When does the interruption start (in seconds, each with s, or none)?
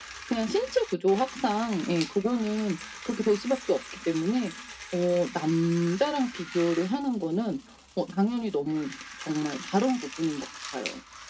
none